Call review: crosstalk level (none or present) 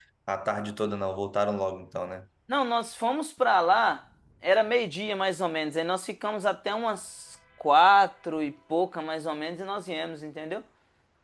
none